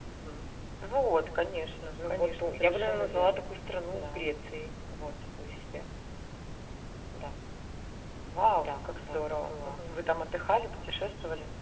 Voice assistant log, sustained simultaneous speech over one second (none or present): present